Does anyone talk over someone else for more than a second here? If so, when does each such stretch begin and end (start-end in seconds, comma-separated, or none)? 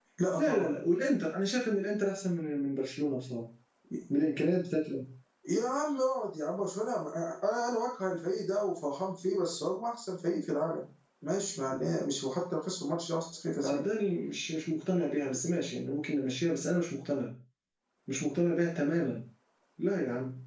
none